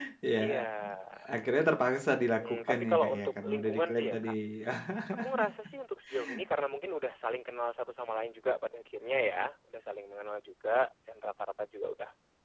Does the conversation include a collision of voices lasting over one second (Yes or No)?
Yes